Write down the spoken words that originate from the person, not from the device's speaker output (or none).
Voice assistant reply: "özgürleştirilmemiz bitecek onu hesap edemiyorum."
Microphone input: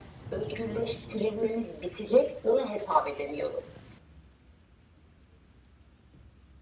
none